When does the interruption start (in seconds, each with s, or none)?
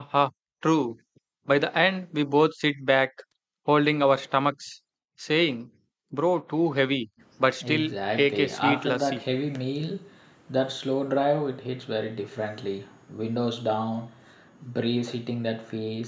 7.6 s